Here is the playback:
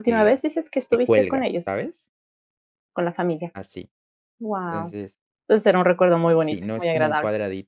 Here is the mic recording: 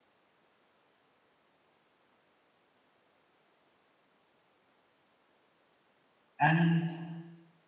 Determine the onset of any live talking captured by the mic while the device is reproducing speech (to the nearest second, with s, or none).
6 s